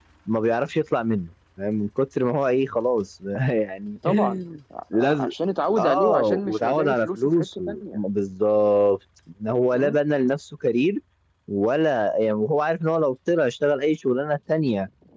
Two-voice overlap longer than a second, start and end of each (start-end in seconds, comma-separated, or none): 5.8-8.0